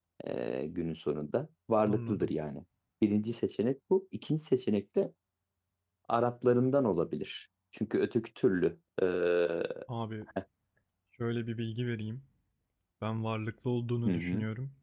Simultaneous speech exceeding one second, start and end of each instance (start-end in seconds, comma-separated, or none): none